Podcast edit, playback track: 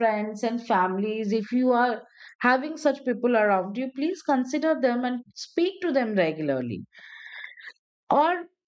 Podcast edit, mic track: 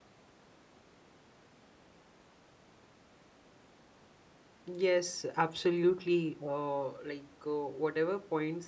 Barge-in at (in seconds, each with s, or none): 4.6 s